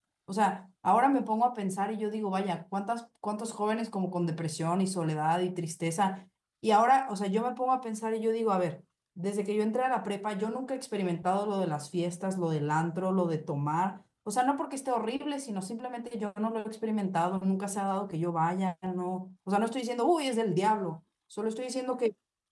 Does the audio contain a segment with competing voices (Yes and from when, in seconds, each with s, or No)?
No